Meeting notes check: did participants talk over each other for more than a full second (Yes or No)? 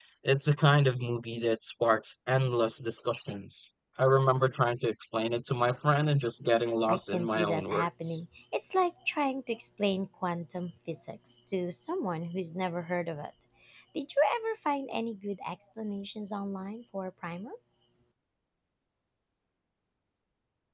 Yes